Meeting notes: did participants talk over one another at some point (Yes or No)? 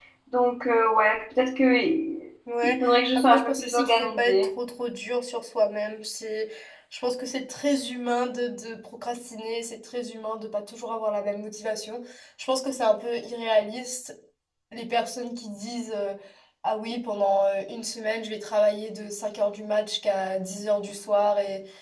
Yes